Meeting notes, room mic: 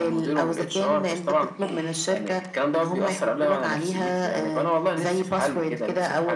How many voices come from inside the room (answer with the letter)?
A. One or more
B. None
B